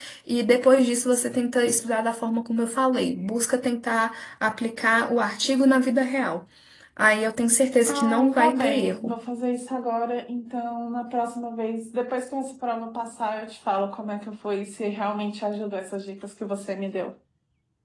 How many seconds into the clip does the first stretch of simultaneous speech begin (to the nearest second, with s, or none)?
8 s